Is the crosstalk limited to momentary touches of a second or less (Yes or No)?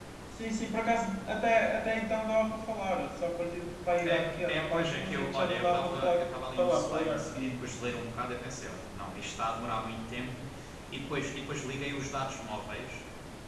No